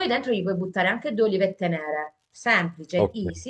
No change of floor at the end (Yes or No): Yes